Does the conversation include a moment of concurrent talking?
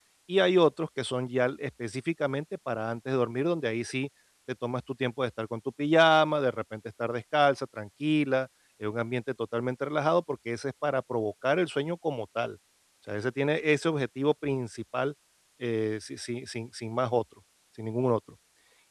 No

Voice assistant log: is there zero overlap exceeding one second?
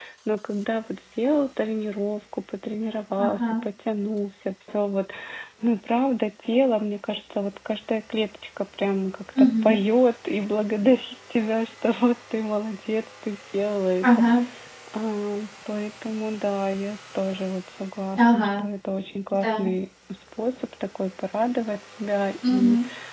Yes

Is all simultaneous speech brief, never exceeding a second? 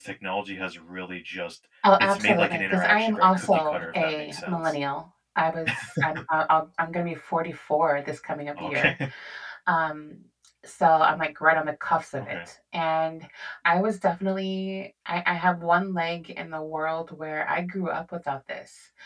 No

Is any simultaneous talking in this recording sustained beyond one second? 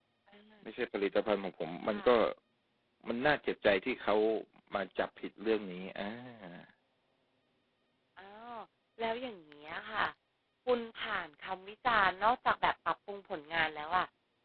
No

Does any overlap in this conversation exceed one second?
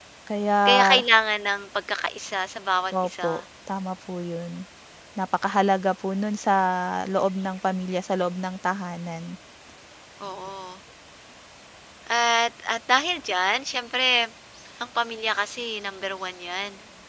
No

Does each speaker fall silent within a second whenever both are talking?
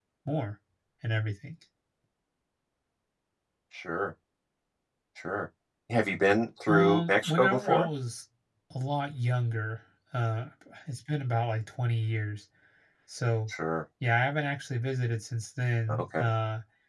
No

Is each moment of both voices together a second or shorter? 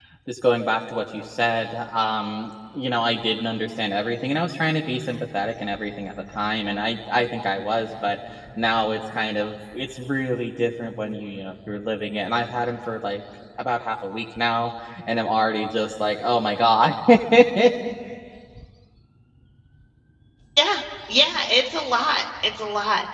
Yes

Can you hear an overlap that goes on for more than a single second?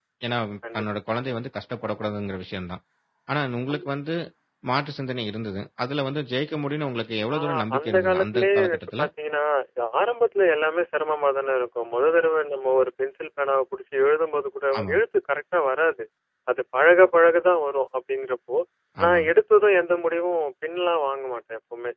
Yes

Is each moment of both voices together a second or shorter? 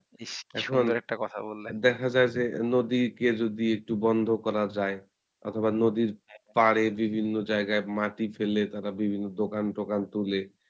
Yes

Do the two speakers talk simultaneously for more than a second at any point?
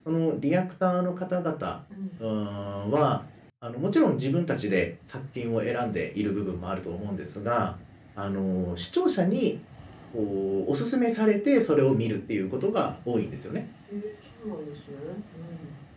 No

